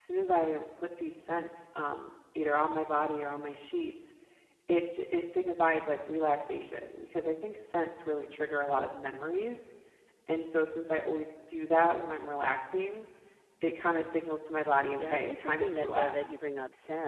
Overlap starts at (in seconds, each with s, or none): 14.9 s